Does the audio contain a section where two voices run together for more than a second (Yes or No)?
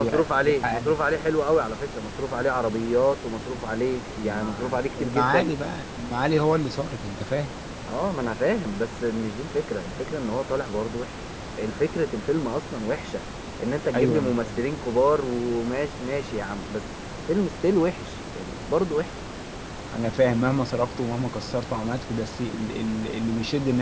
Yes